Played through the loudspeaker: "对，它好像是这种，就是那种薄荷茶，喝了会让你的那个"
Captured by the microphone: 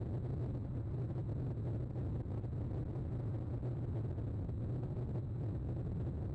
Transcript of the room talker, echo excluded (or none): none